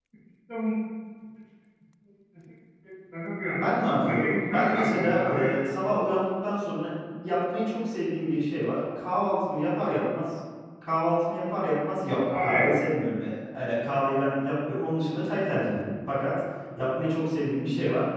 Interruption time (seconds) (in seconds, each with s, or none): 4.0 s